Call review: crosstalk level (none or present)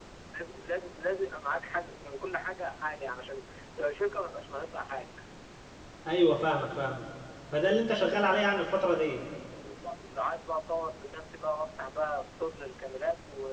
none